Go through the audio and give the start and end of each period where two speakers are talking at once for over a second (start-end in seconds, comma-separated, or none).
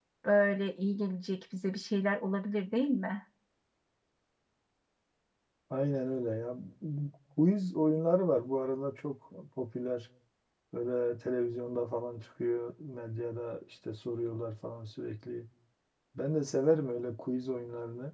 none